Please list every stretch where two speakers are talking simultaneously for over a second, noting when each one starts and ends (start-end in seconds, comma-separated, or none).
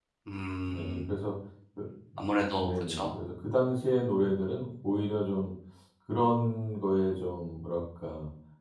none